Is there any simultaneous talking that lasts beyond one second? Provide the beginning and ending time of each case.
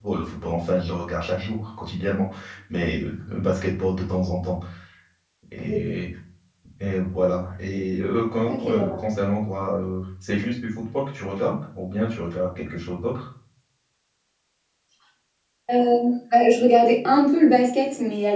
none

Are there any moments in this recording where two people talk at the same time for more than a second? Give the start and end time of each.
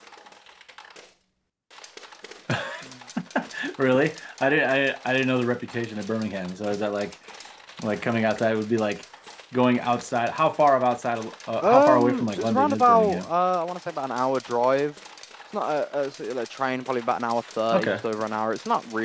11.6-13.3

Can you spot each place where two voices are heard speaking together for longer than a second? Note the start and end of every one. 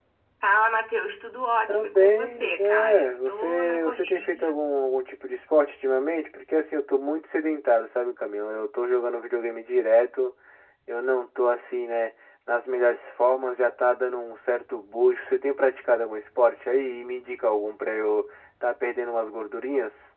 1.7-4.6

